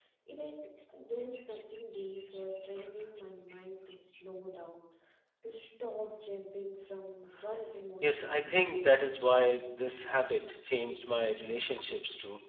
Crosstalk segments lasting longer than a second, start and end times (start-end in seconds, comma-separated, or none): 8.0-9.2